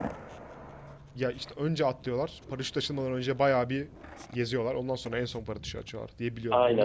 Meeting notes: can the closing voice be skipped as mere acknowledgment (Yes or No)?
No